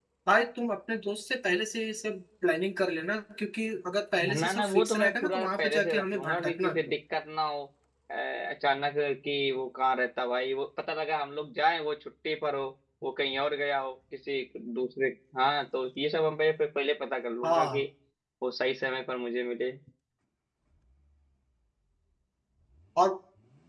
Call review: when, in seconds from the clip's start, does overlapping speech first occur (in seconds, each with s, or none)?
4.2 s